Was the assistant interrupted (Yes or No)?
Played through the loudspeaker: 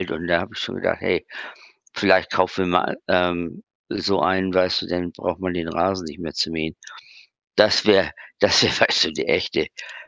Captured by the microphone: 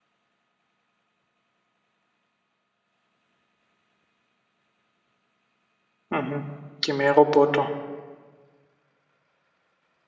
Yes